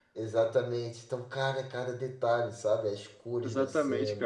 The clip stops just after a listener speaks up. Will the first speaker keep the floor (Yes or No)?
No